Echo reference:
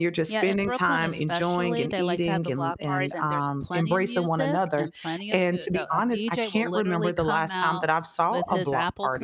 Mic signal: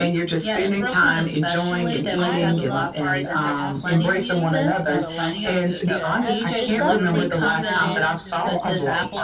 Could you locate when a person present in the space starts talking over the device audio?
2.2 s

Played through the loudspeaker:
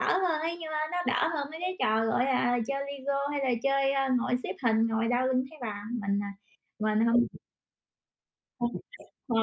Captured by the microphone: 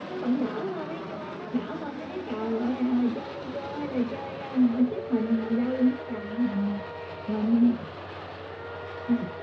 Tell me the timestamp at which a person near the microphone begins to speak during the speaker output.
none

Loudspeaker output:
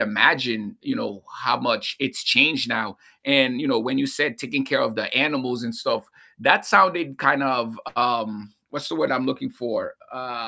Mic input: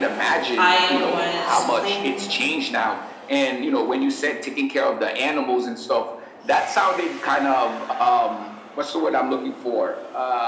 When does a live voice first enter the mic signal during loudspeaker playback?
0.6 s

